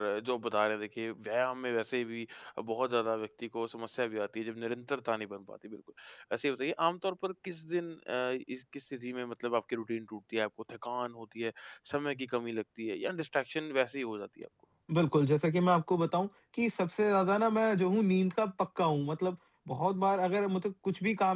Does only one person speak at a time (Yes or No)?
Yes